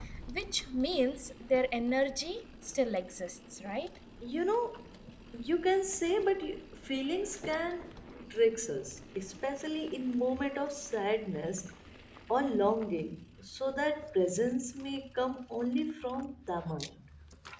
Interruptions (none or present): none